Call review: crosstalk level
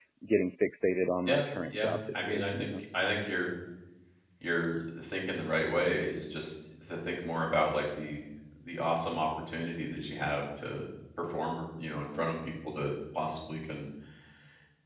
present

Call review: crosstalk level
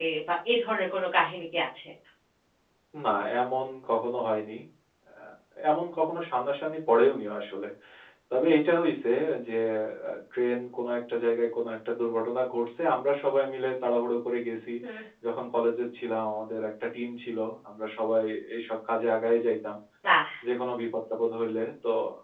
none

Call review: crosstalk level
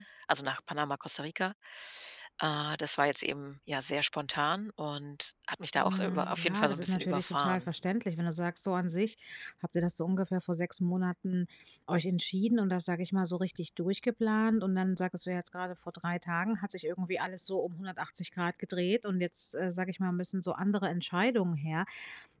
present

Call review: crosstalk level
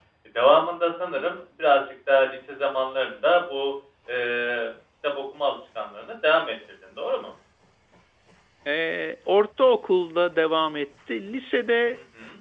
none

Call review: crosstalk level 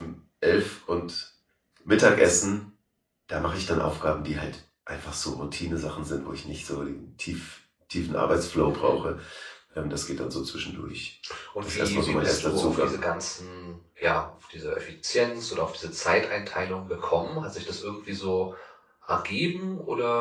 present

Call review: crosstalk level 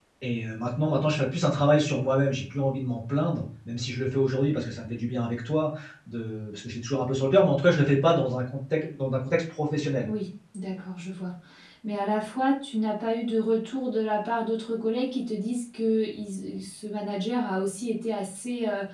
none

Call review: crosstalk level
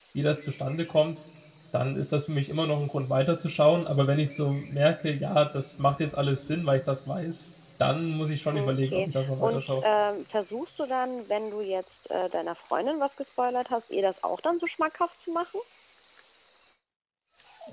present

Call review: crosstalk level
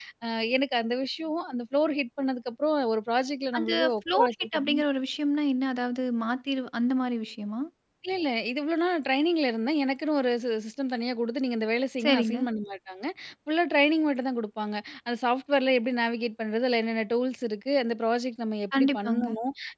present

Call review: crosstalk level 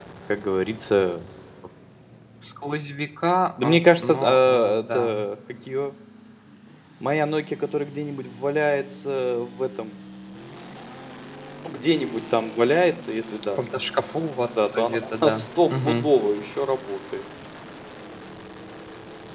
present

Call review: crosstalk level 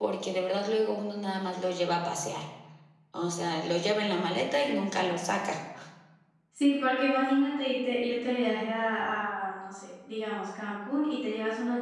none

